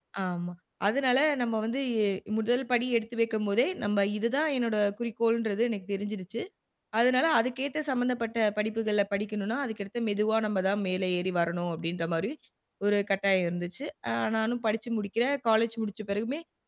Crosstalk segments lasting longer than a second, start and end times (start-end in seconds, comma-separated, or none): none